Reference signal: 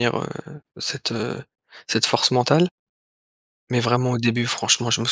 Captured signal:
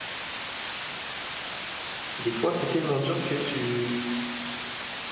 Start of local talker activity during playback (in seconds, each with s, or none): 2.2 s